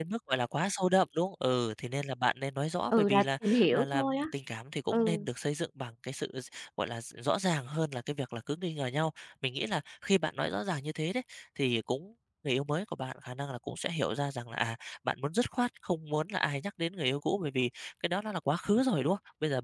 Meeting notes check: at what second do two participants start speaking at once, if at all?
2.9 s

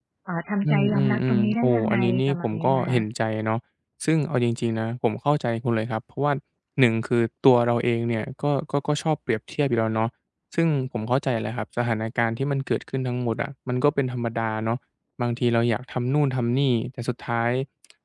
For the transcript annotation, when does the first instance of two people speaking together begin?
0.6 s

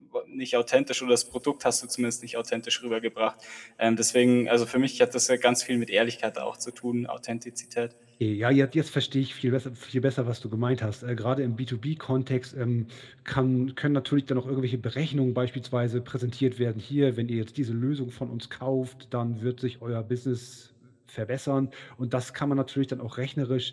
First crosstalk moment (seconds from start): none

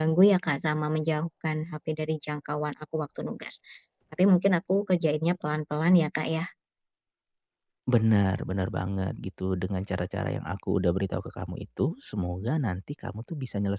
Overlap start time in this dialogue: none

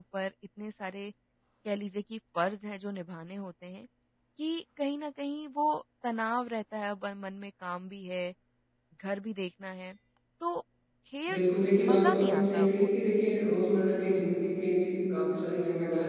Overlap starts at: 11.8 s

